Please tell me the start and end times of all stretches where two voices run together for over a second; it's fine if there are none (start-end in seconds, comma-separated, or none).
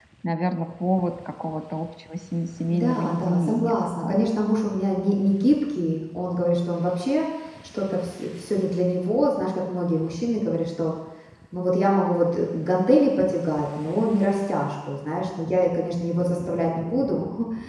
2.7-4.3